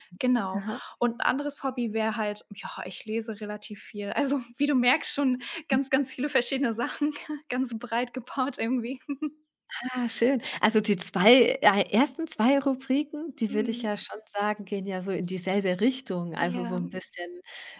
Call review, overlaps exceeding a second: none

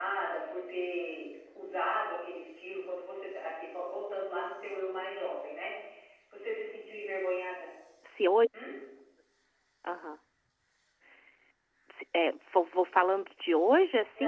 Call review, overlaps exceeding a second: none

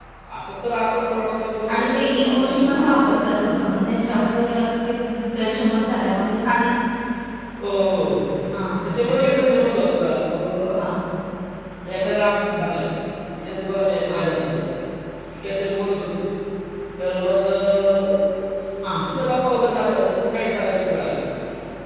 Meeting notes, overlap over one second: present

